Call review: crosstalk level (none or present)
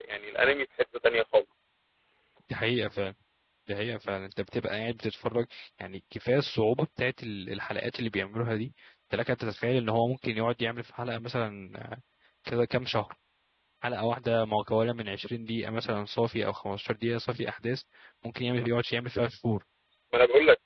none